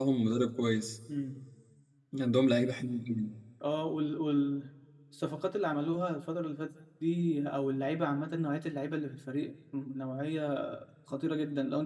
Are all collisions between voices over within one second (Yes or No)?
Yes